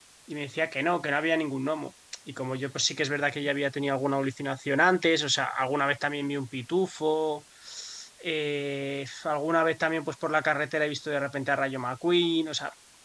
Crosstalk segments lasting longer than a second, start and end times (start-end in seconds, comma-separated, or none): none